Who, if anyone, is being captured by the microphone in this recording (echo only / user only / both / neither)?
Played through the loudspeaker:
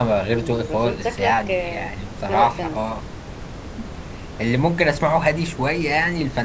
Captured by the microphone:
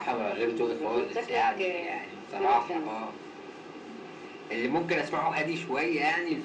echo only